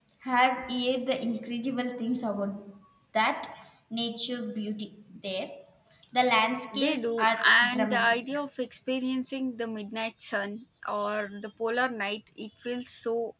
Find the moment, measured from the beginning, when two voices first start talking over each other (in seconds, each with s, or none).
6.7 s